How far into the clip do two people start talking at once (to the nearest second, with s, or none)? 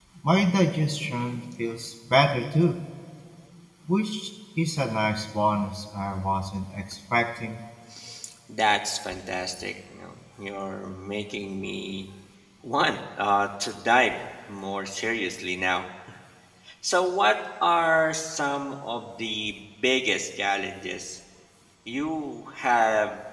none